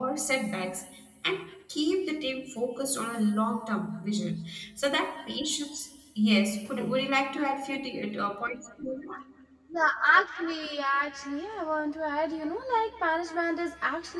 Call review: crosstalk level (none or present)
none